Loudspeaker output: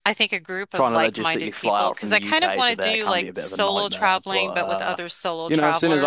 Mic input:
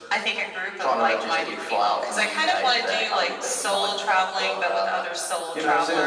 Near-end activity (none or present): none